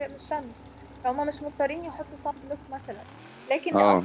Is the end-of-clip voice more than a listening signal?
No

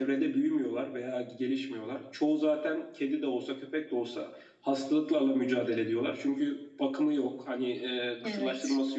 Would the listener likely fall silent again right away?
Yes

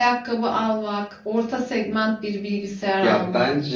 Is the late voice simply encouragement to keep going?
No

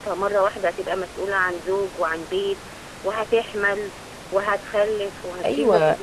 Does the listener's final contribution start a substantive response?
Yes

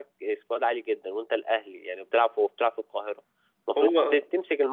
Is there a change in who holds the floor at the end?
No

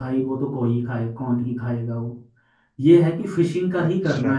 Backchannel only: Yes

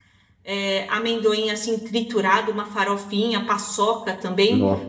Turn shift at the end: No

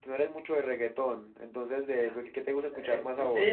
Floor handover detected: Yes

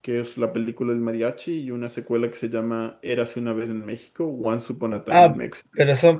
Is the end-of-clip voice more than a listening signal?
Yes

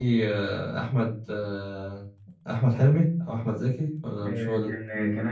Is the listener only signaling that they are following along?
No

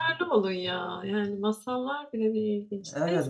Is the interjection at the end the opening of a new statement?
Yes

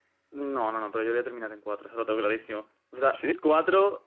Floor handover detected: No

